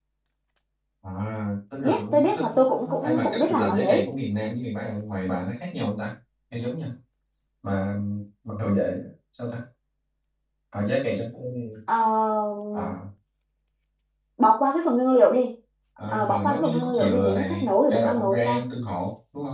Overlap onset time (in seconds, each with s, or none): 1.8 s